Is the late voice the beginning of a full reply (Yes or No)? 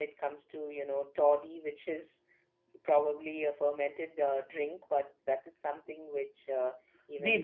Yes